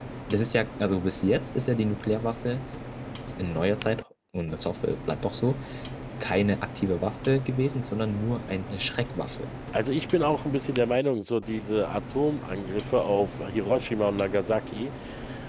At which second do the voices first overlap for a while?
none

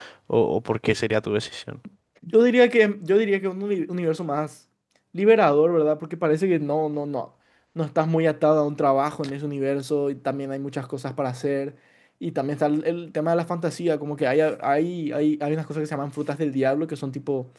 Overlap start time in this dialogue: none

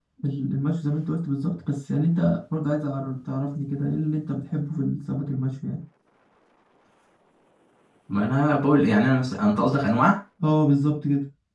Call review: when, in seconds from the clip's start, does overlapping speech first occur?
none

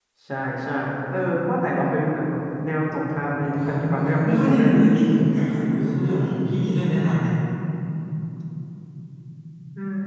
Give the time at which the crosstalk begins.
3.4 s

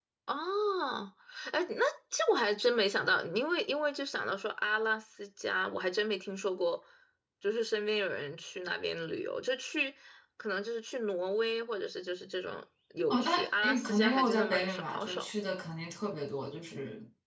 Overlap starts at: 13.1 s

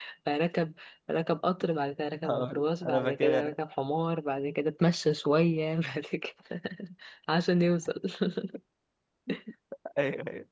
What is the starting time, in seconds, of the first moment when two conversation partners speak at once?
2.2 s

